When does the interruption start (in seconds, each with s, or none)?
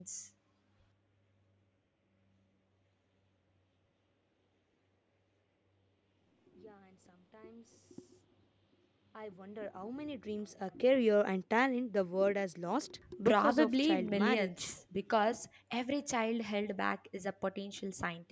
13.0 s